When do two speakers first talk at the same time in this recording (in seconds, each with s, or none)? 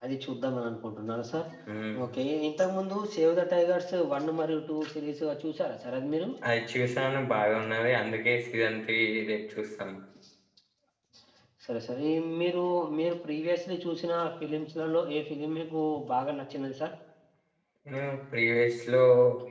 none